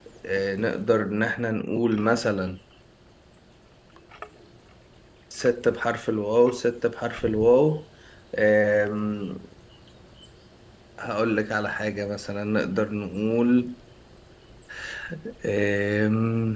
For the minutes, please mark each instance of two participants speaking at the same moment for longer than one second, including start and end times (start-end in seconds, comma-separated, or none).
none